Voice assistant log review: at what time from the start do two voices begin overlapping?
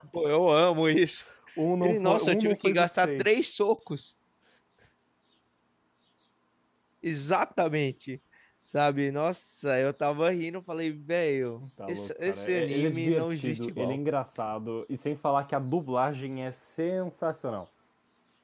1.8 s

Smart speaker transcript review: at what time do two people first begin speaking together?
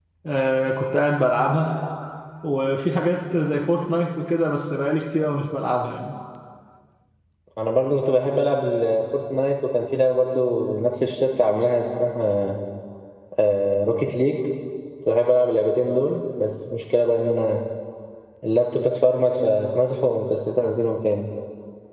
none

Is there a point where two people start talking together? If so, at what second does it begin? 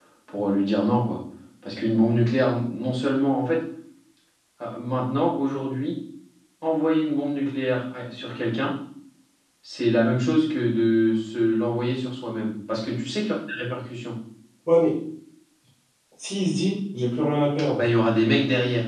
none

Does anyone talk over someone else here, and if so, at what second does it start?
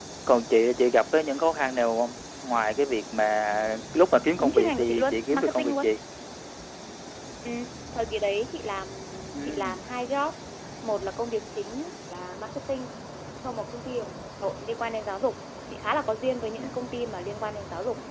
4.4 s

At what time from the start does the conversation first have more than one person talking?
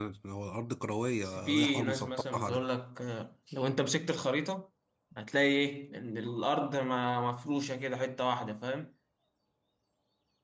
1.2 s

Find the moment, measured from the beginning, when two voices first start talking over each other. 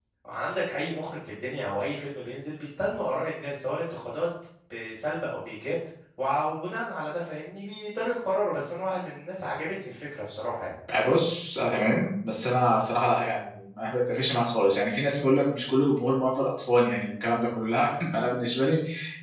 none

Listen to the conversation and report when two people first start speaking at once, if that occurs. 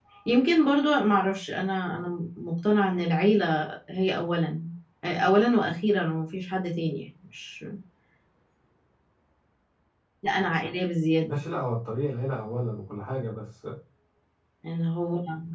none

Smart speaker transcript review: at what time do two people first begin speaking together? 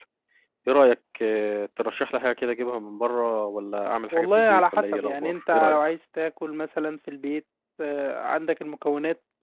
4.1 s

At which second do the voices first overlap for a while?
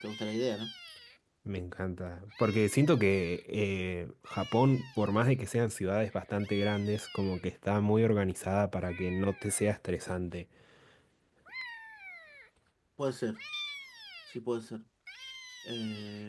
none

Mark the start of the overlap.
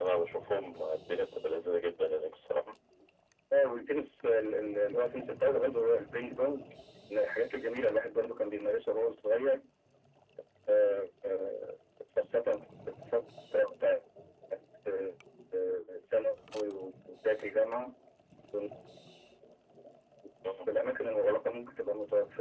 none

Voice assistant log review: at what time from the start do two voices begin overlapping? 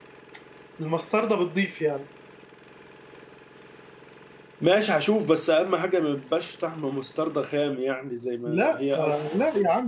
8.4 s

